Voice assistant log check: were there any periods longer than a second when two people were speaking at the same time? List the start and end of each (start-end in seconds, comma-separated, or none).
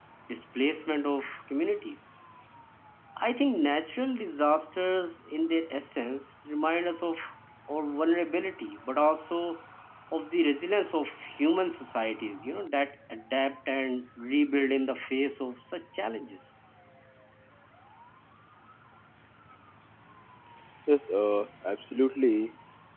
none